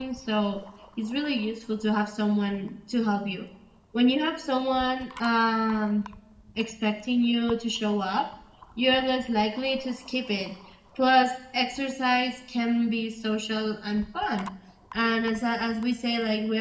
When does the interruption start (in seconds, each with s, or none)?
none